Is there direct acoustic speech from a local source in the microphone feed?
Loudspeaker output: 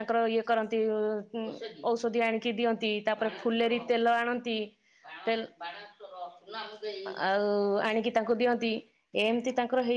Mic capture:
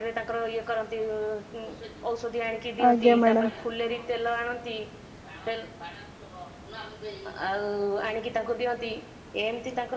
Yes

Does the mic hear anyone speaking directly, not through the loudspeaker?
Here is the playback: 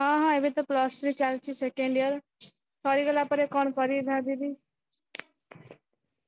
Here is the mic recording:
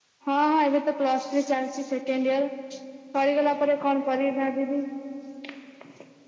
No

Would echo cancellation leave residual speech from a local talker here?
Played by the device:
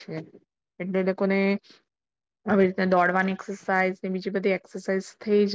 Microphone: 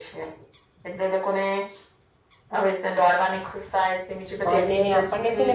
Yes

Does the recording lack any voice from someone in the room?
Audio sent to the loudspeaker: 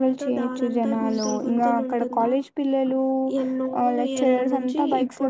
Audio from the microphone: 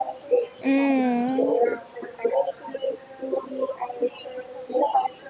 No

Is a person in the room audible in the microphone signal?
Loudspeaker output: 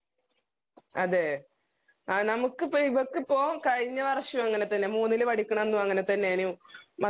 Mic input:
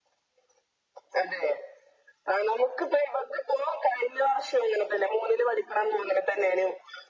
No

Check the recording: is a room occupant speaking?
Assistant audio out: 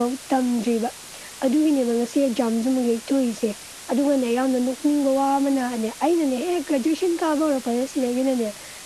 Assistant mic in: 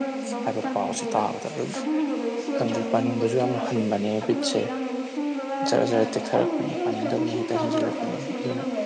Yes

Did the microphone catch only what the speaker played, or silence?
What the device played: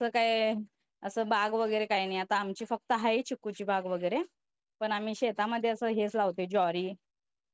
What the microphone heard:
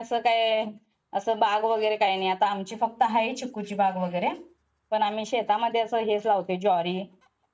Yes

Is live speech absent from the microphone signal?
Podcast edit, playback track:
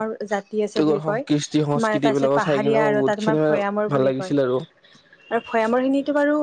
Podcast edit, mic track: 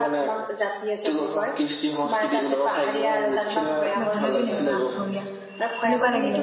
No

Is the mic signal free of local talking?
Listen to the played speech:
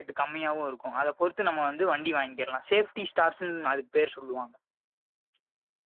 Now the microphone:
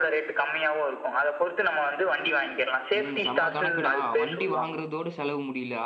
No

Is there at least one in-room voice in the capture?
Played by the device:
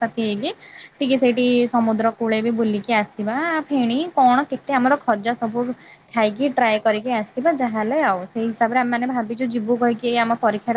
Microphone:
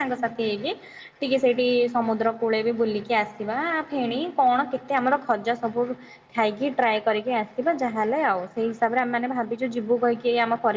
No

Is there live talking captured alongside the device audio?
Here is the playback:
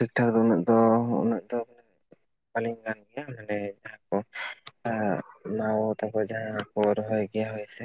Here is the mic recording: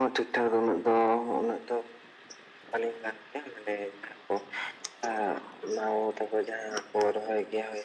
No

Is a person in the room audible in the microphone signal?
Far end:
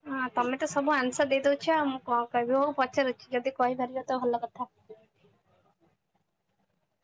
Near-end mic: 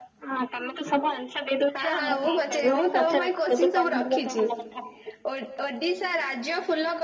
Yes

